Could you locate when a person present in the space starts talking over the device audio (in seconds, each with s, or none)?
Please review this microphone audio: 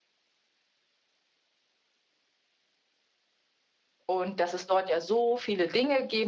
4.0 s